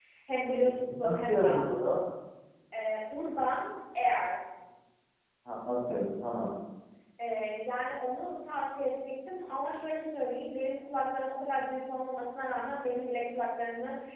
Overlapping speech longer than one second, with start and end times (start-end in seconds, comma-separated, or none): 0.6-1.9